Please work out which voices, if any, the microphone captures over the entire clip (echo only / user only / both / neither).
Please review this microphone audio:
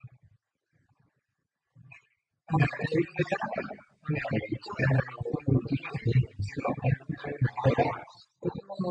echo only